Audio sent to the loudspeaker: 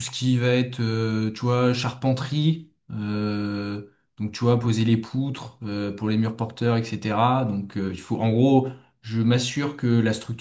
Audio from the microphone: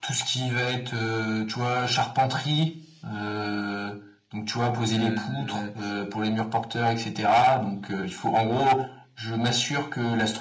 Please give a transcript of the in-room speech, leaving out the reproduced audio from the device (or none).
Euh,